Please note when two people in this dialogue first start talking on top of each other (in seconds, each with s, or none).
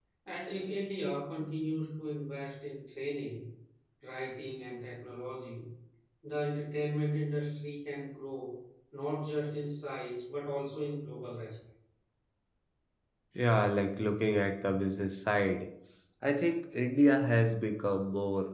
none